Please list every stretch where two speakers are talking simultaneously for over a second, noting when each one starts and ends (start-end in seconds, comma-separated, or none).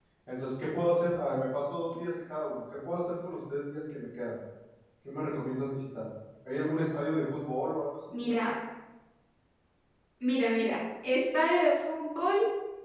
none